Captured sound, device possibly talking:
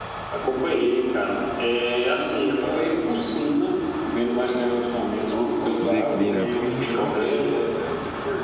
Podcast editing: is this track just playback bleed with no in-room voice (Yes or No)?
No